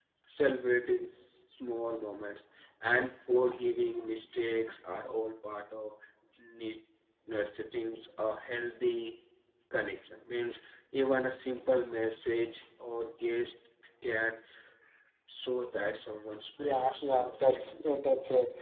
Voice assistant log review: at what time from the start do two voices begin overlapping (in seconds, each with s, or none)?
16.6 s